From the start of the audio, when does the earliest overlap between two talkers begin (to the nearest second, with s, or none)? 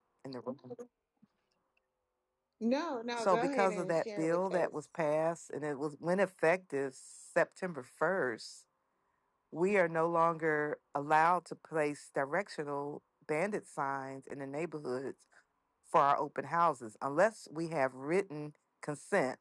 3 s